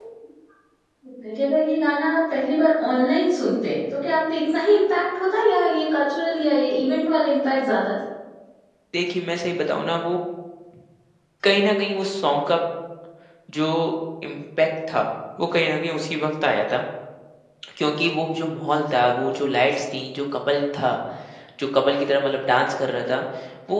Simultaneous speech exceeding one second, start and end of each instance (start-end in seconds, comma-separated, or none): none